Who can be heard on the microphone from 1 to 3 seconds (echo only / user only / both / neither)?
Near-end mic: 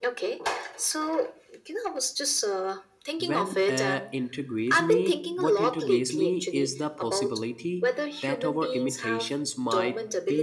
echo only